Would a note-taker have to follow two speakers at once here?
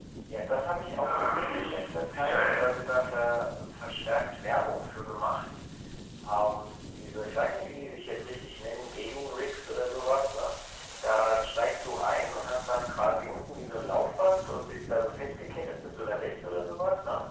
Yes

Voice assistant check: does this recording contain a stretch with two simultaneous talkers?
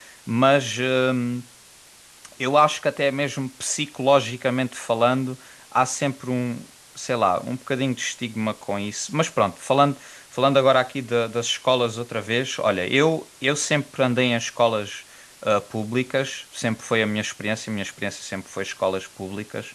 No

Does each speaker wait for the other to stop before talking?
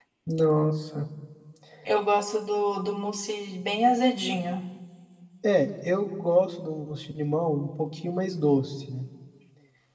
Yes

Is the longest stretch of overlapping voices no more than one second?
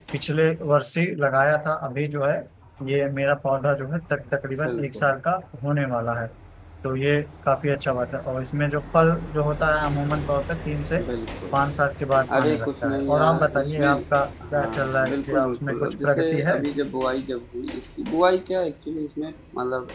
No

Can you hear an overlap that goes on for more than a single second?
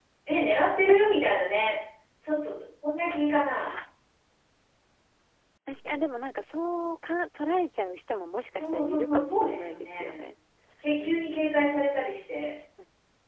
Yes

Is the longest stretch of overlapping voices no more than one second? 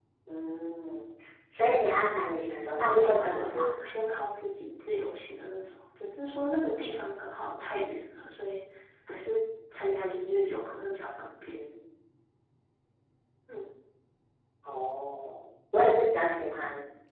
No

